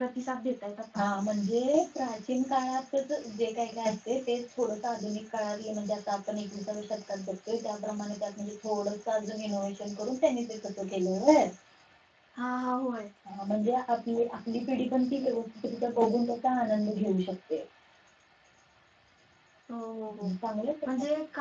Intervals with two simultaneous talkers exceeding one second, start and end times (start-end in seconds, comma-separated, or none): none